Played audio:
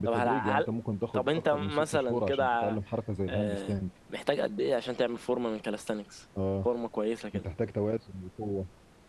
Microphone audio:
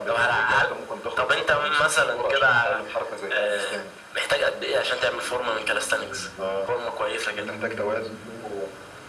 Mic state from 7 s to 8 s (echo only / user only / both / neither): both